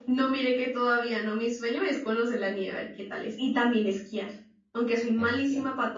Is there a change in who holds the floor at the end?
No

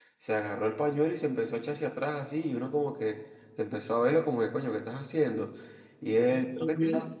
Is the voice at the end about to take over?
No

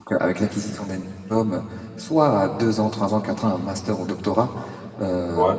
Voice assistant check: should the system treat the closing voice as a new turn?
No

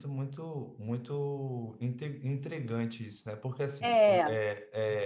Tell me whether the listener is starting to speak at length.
No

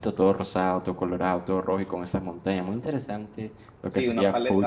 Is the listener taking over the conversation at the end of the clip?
Yes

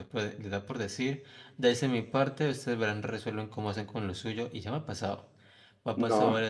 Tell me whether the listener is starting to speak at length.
No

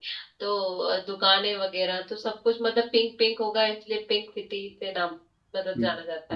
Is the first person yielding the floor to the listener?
Yes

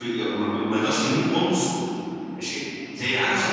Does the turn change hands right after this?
No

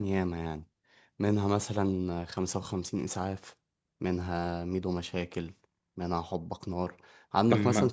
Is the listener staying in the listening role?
Yes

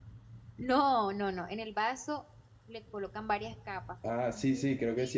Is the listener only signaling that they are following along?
No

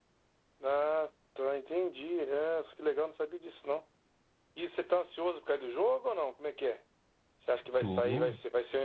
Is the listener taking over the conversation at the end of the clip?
No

